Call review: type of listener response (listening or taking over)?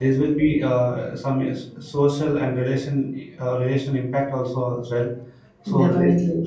listening